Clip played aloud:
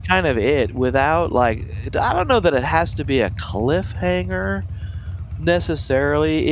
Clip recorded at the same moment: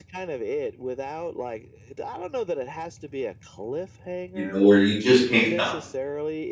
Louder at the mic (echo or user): user